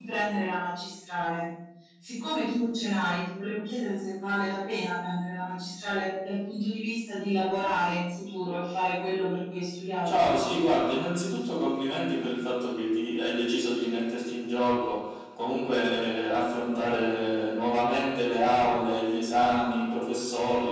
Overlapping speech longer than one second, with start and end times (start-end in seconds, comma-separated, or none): none